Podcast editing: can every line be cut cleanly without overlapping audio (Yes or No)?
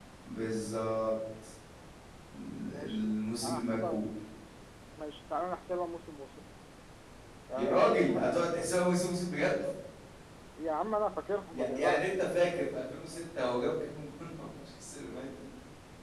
No